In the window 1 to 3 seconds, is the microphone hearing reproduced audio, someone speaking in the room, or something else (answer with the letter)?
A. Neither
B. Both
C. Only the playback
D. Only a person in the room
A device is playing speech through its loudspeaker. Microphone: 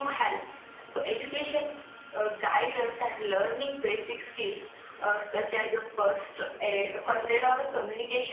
C